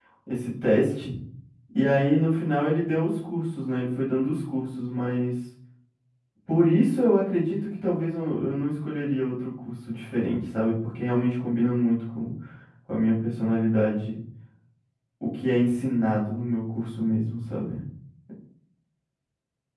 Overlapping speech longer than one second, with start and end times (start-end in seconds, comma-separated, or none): none